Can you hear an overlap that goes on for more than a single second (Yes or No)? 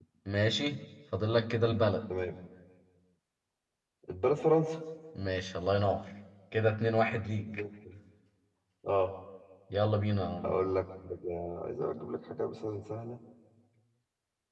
No